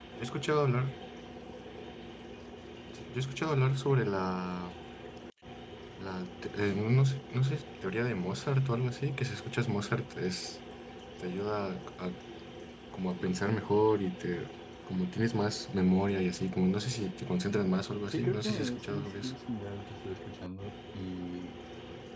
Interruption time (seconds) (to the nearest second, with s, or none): 18 s